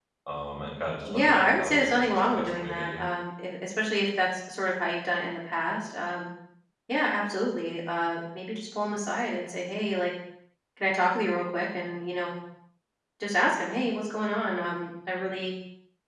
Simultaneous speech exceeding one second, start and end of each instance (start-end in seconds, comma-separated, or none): 1.1-3.0